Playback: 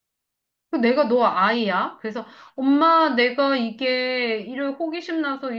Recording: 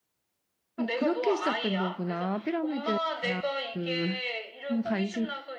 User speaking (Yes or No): Yes